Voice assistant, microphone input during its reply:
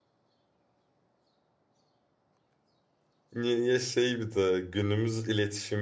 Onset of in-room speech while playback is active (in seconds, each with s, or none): 3.3 s